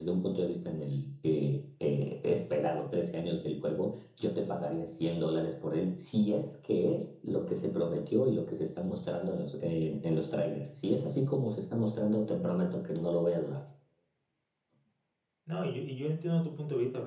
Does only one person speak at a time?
Yes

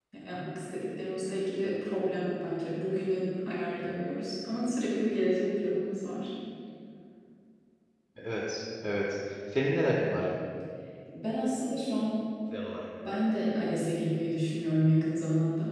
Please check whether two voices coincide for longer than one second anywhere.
No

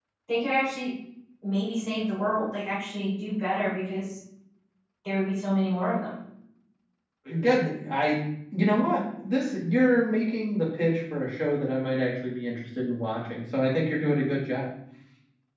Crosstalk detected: No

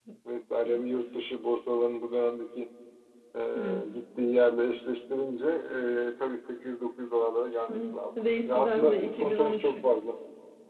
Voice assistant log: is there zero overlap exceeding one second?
No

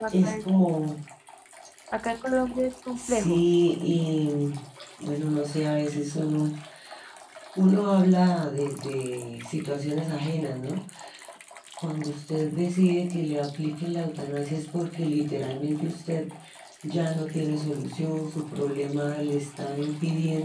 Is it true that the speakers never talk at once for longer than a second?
Yes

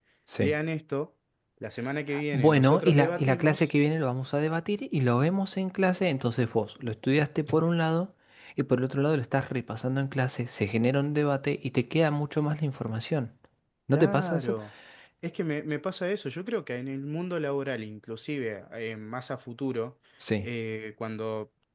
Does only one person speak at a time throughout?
No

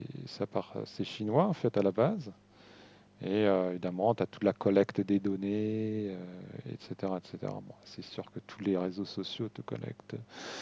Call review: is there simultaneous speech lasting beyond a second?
No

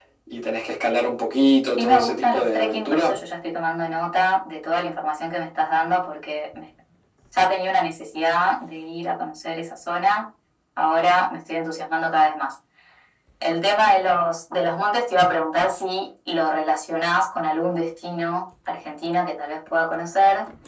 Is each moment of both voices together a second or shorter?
No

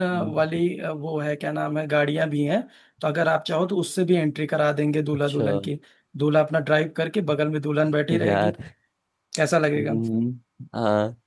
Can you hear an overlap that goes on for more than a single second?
No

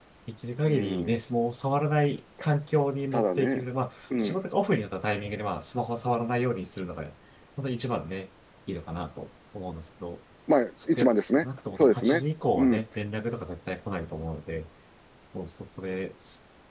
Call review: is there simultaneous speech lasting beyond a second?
Yes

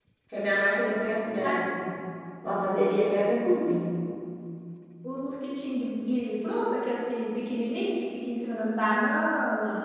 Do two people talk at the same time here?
No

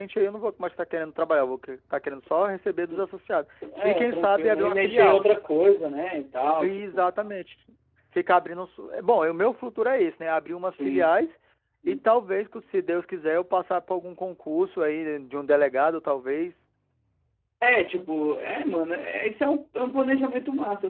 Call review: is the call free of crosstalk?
No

